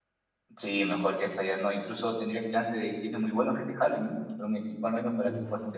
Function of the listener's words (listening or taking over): taking over